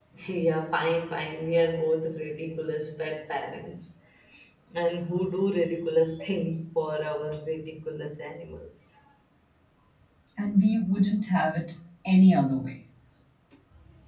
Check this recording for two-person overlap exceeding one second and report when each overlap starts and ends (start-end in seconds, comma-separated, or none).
none